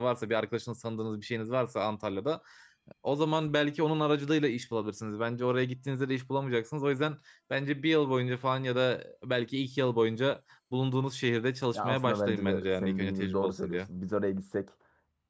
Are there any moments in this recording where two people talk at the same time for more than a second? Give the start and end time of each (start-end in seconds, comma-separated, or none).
11.7-13.8